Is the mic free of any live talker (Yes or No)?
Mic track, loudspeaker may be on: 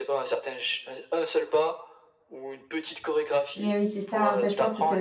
No